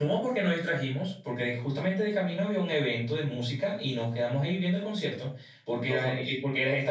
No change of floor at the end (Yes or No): Yes